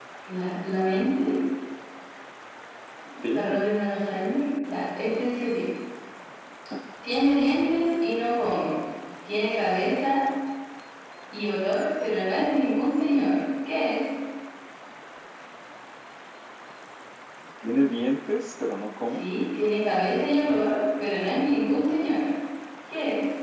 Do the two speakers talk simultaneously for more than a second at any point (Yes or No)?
No